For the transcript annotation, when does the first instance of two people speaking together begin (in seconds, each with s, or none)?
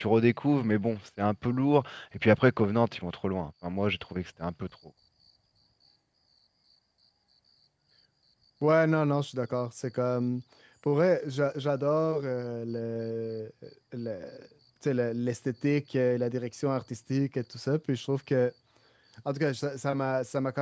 none